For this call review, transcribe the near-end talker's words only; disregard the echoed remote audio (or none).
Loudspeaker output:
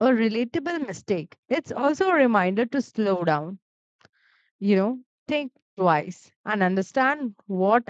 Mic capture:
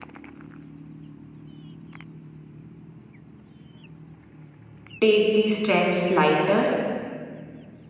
take these trends lighter